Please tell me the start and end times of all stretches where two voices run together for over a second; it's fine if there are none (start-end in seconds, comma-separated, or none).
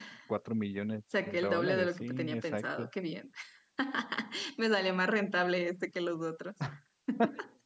1.2-2.9